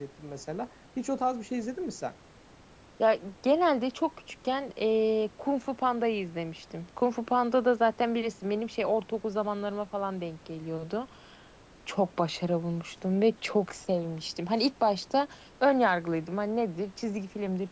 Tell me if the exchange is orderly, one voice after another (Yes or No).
Yes